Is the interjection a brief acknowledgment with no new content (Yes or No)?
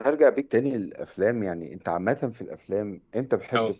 Yes